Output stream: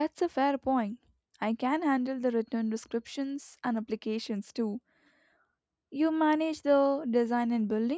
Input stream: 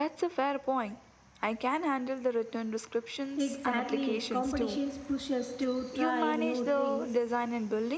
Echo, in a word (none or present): present